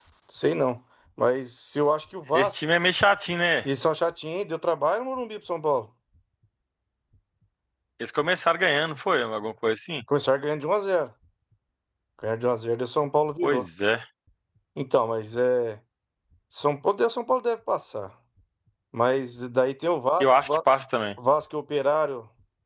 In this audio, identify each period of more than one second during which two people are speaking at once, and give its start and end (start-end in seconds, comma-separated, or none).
none